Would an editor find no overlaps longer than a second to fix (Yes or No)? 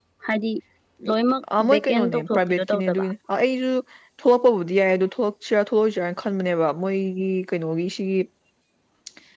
No